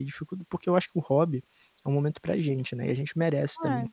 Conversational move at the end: taking over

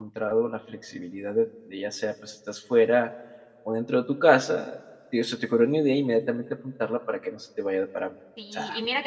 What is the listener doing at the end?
taking over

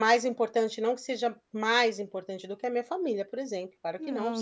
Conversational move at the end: listening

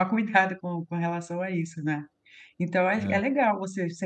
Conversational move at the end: listening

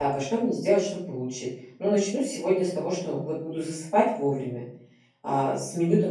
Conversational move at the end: listening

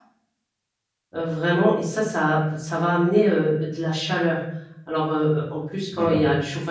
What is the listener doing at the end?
listening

